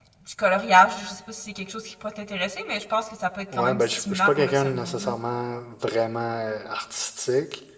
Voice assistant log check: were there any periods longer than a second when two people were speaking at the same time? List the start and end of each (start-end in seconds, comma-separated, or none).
3.5-5.1